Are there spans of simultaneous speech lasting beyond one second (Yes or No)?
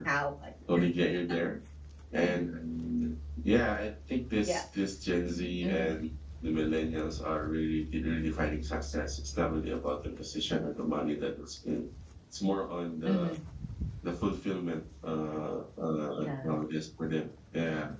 No